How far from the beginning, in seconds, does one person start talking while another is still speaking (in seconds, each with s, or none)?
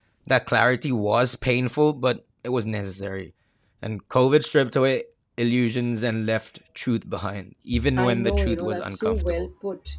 7.7 s